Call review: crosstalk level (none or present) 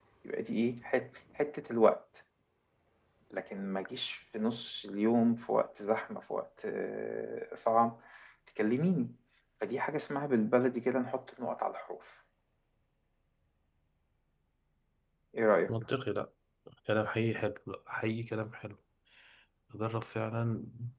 none